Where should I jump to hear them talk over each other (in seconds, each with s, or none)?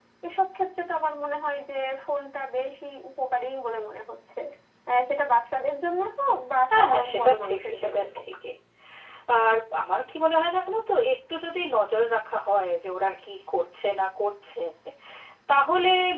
6.7 s